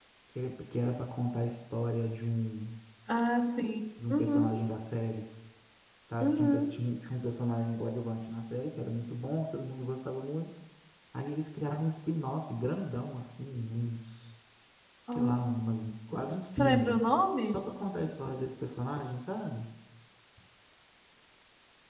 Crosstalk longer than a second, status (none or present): none